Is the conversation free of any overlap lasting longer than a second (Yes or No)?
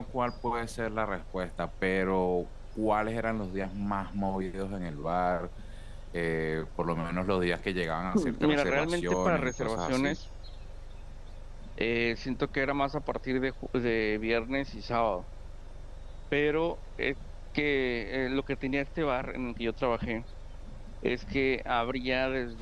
No